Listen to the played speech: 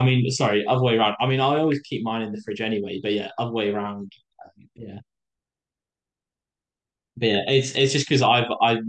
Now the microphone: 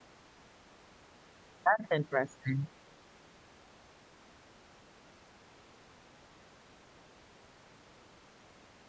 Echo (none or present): none